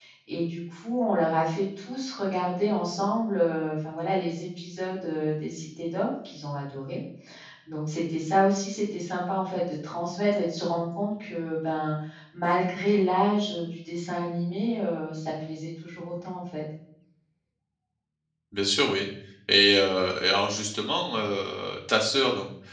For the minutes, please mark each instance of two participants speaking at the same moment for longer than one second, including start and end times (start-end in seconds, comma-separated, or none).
none